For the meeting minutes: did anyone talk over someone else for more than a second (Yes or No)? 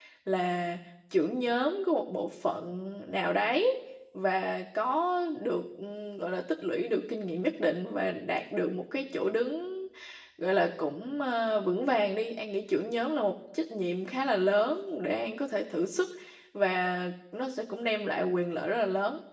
No